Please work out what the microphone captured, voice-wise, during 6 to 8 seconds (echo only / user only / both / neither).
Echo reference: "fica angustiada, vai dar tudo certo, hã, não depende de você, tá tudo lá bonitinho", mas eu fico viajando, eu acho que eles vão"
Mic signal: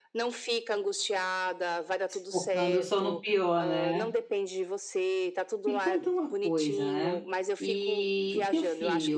both